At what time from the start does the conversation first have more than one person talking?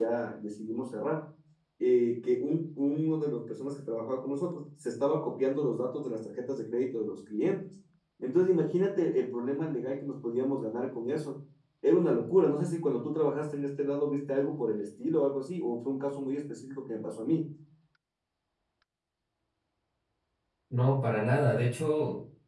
none

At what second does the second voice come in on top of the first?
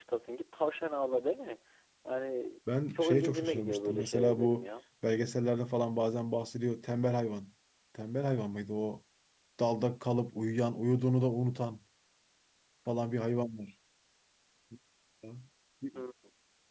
3.0 s

